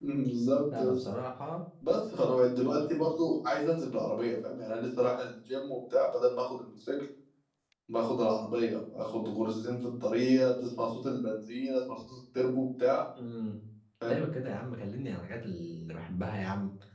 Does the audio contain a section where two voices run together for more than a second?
No

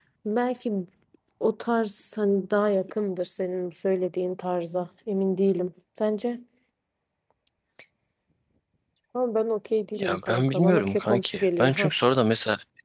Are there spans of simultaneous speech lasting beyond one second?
Yes, from 10.0 s

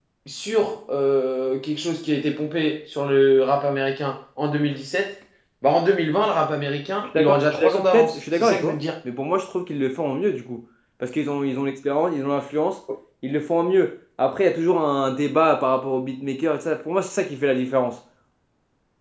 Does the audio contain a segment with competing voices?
Yes, from 7.1 s

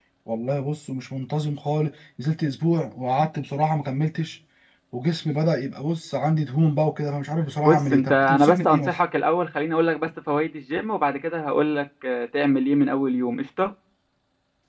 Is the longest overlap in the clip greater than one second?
Yes, from 7.6 s

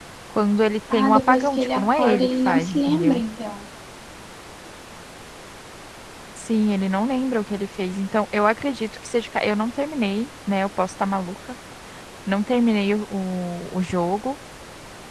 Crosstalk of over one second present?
Yes, from 0.9 s

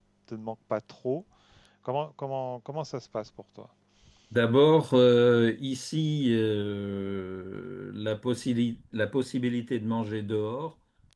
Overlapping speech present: No

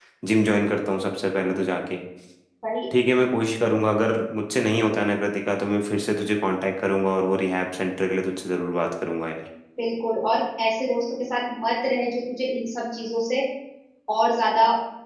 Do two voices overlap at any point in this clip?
No

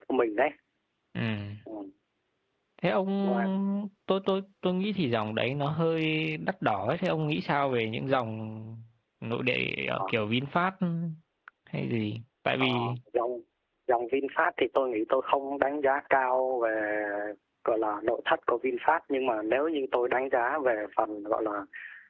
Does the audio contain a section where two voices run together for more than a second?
No

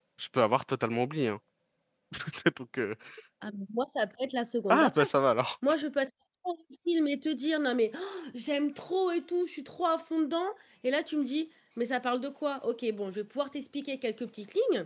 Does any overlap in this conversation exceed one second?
No

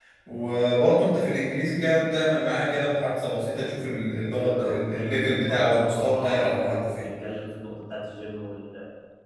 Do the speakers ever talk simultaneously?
Yes, from 4.4 s

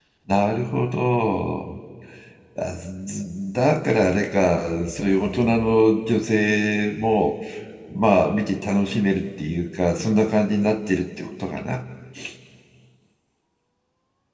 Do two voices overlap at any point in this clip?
No

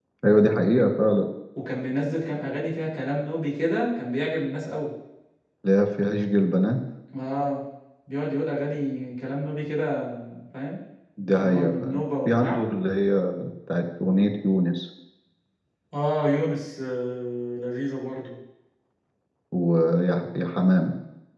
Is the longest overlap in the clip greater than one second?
Yes, from 11.4 s

